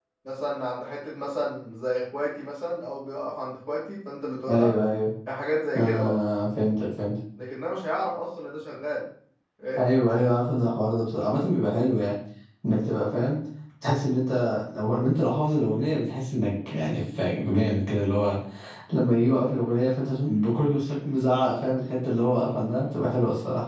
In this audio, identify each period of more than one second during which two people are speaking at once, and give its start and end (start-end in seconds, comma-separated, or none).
none